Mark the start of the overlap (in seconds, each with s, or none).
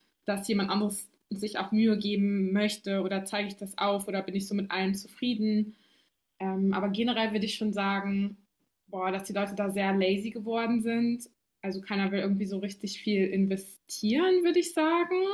none